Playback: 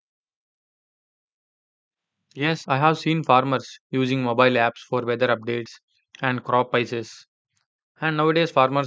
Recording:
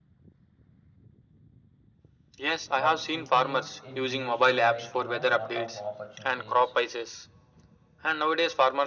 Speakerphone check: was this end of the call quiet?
No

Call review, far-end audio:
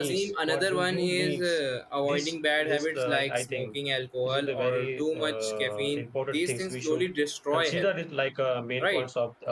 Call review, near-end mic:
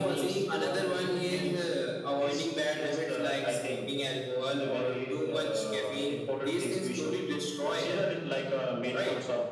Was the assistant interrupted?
No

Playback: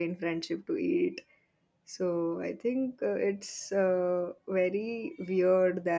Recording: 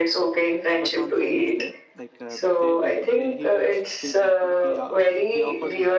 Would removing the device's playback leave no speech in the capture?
No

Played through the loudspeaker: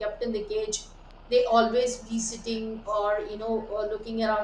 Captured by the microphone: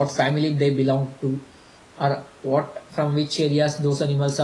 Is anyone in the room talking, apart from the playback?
Yes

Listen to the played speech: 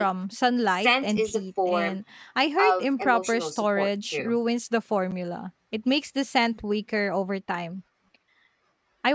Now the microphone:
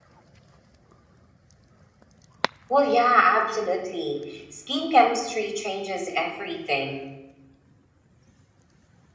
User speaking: Yes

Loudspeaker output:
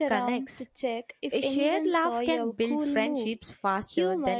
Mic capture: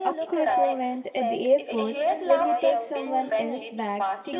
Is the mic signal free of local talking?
No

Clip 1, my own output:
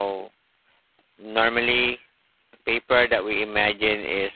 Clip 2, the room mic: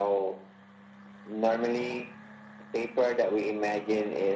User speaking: No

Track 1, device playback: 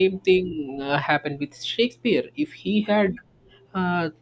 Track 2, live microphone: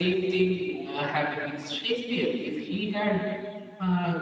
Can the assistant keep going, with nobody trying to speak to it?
Yes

